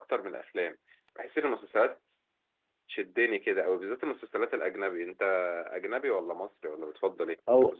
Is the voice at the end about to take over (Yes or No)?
Yes